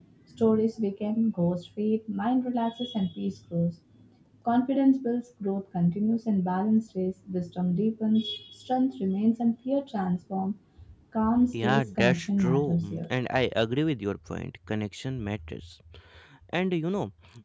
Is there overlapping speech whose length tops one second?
Yes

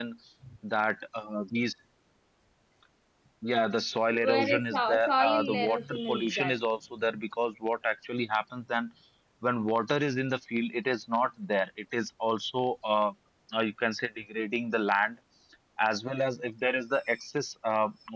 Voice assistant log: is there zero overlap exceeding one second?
No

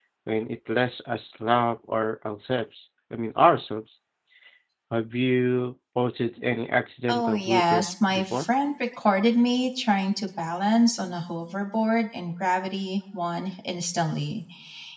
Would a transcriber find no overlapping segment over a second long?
No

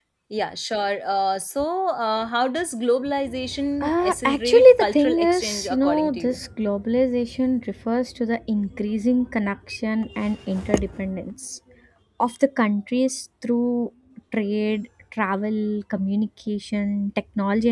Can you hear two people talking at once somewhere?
Yes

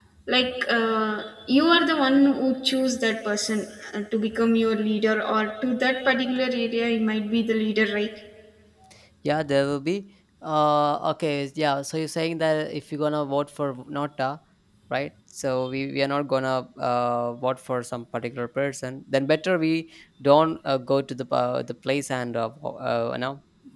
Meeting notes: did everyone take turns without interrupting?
Yes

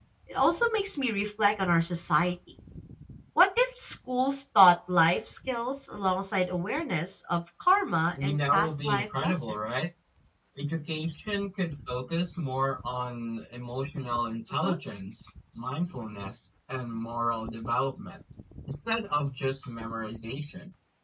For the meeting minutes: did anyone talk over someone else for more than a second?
Yes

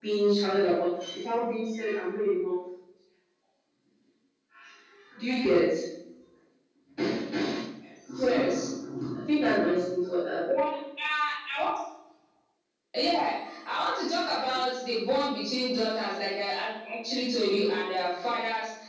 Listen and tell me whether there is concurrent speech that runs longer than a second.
No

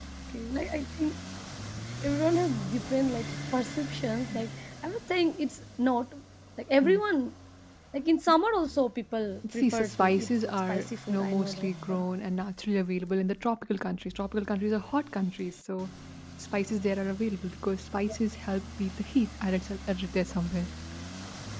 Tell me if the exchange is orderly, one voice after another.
No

